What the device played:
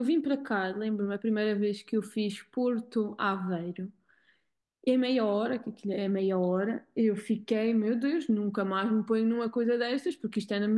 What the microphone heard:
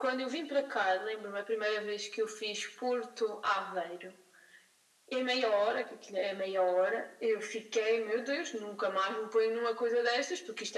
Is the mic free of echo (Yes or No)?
No